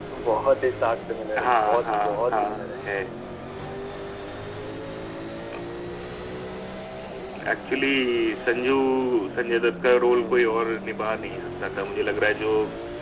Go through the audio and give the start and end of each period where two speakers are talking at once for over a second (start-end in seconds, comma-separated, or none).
1.4-2.7